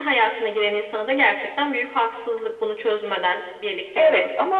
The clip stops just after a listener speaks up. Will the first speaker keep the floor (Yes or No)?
No